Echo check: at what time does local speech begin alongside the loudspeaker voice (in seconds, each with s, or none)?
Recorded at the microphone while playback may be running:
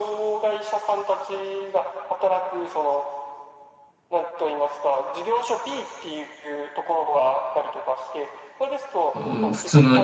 9.1 s